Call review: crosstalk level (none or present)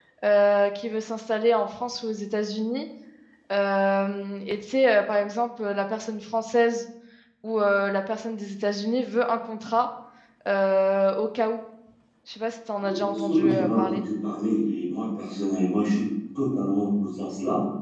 present